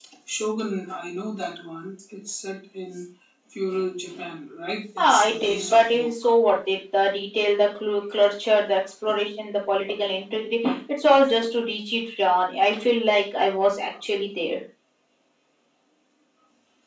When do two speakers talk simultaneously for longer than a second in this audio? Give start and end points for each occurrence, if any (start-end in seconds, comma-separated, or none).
5.0-6.3